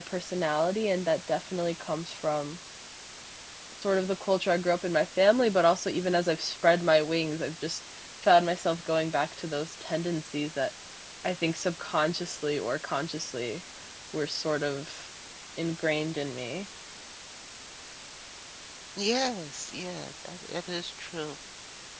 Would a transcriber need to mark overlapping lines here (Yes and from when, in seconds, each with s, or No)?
No